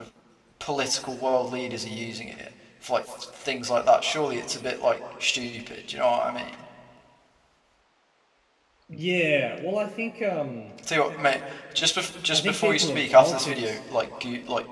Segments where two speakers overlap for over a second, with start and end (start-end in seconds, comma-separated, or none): 12.3-13.8